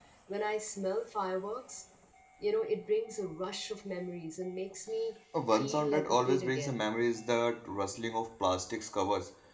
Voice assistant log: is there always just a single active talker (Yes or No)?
No